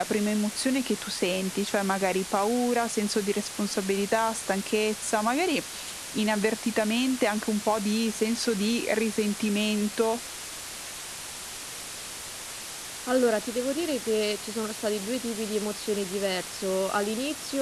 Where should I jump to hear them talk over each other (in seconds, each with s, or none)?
none